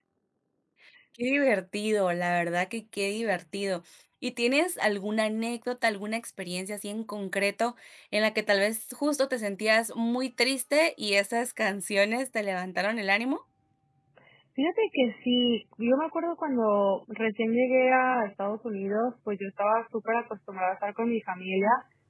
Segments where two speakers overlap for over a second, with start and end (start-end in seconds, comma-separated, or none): none